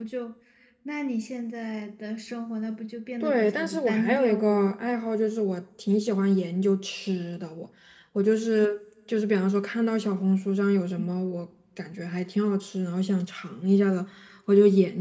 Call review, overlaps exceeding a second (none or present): present